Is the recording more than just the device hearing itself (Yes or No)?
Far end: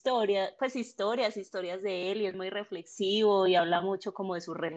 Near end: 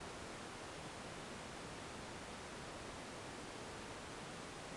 No